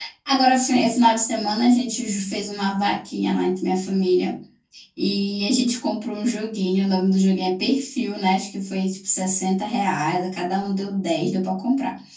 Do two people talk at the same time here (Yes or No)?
No